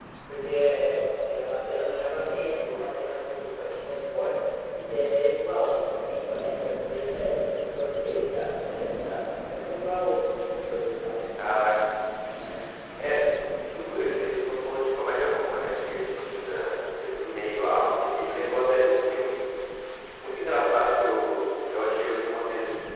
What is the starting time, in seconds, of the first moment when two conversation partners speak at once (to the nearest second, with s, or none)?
none